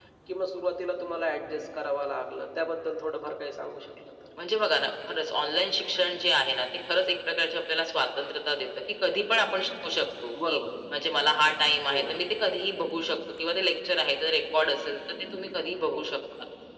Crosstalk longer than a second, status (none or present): none